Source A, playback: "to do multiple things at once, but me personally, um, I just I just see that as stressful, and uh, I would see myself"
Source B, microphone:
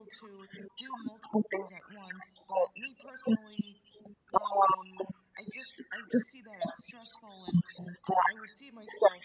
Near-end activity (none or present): none